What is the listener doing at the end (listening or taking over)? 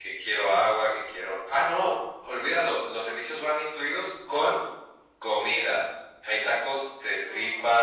listening